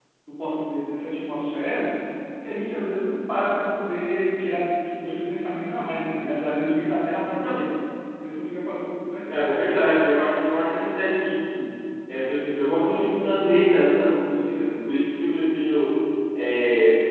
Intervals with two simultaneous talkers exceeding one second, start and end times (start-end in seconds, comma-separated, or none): none